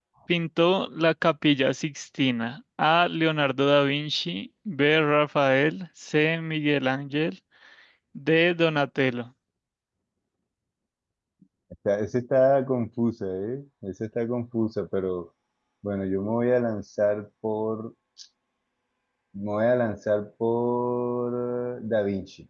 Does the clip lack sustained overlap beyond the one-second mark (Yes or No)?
Yes